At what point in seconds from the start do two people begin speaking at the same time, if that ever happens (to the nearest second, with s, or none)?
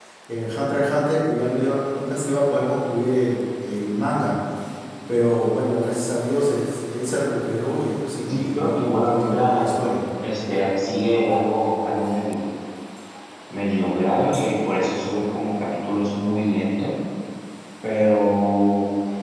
8 s